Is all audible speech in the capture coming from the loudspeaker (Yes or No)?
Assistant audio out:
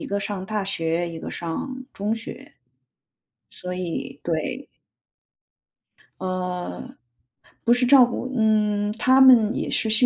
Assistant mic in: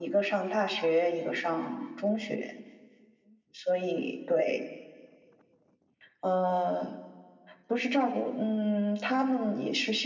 Yes